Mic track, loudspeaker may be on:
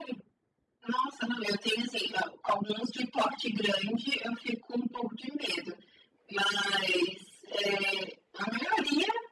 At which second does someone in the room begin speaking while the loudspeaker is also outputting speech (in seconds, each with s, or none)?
none